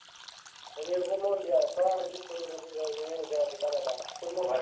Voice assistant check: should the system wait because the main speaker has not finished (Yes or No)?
No